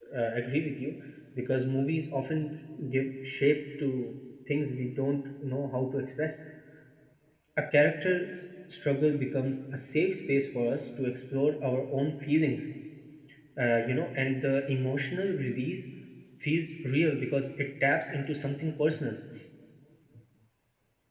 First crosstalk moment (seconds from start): none

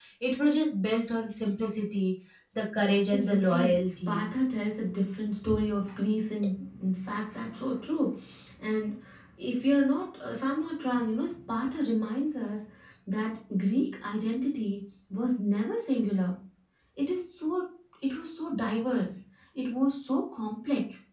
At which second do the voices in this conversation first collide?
2.9 s

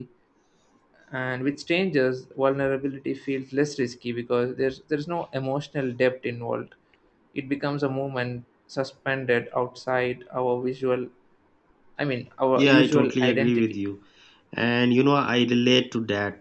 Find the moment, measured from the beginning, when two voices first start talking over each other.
12.6 s

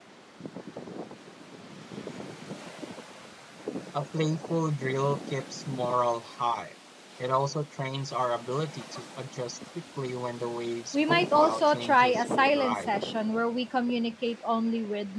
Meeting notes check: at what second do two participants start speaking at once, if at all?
10.9 s

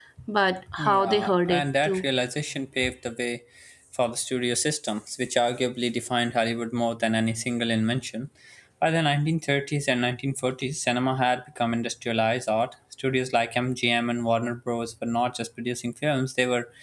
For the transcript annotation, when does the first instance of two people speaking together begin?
0.8 s

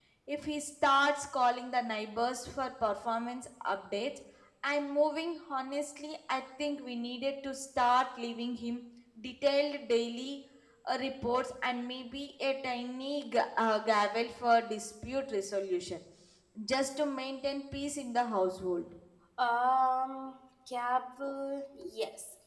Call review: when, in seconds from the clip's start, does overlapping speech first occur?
none

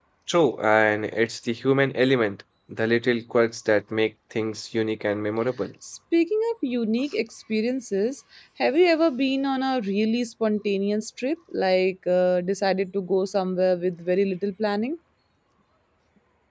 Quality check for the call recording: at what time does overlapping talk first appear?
none

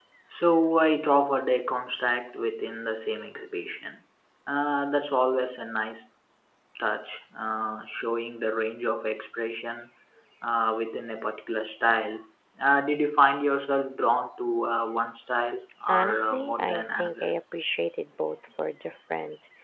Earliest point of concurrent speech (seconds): 15.9 s

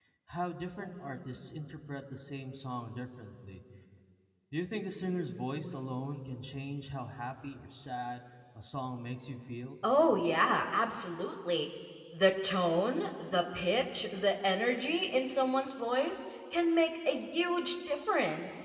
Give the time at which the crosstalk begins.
none

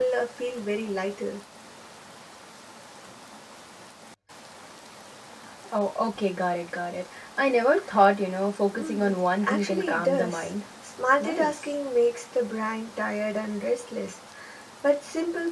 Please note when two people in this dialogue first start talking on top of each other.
8.7 s

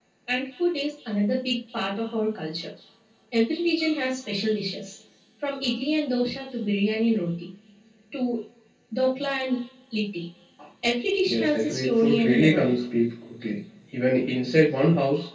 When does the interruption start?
11.3 s

